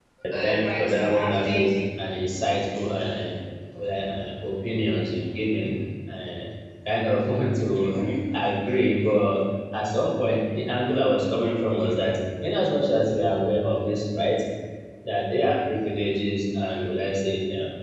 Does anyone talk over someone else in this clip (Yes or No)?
Yes